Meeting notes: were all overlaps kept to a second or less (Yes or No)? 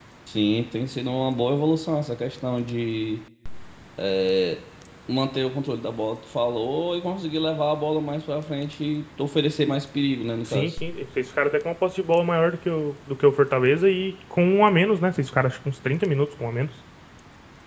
Yes